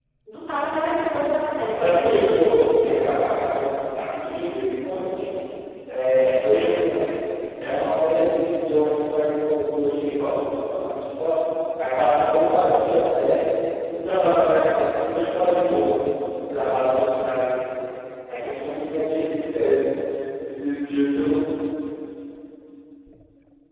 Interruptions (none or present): present